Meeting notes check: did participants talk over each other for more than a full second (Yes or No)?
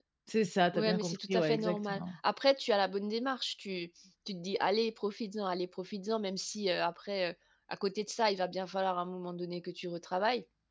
Yes